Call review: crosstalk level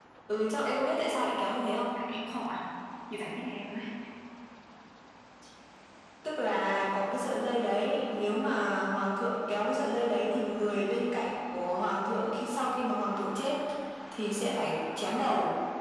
none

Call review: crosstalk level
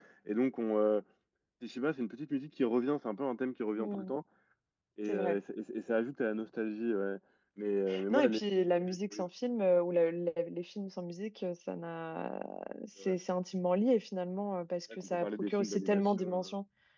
present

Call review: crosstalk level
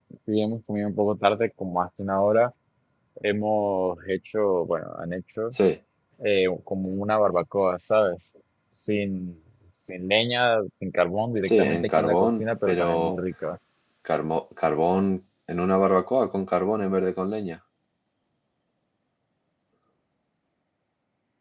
present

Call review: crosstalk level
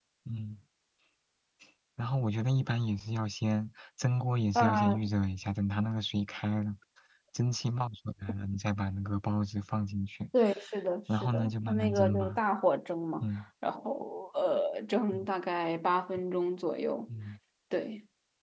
present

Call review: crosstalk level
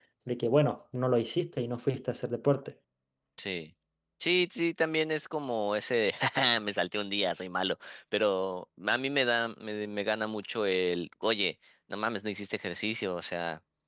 none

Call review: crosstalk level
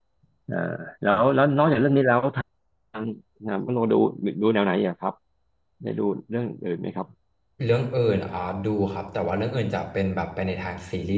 none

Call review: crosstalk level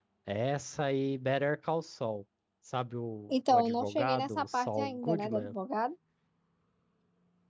present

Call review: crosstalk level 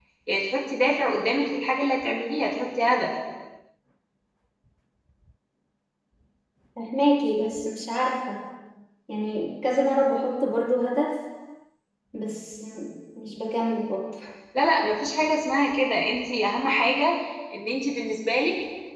none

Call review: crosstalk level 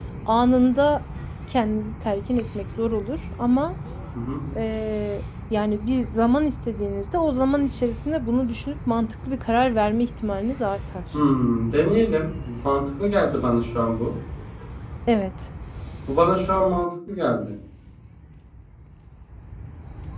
none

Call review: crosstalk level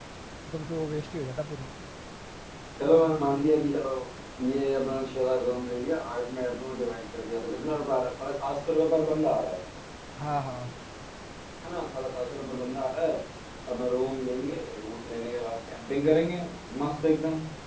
none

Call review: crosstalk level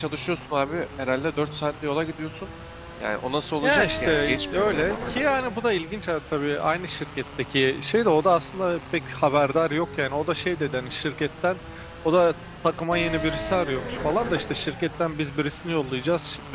present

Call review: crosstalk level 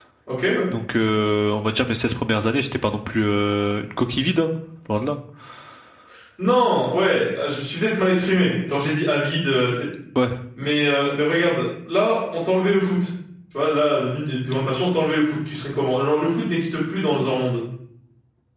none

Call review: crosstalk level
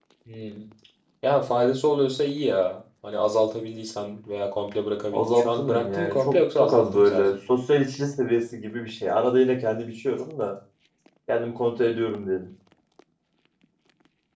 present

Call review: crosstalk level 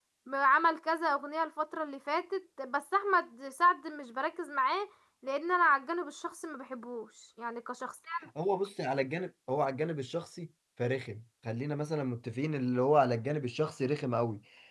none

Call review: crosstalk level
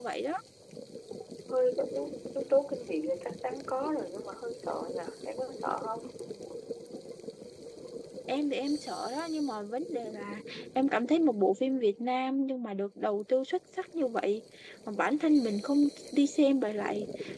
none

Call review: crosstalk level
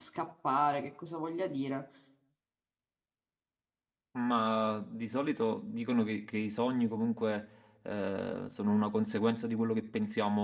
none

